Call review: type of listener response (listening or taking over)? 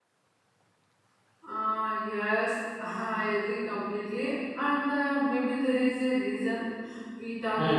listening